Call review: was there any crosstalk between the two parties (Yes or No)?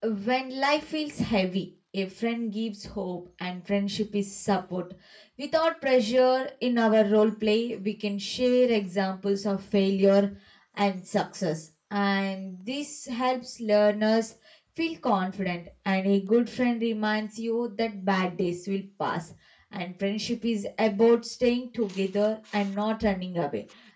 No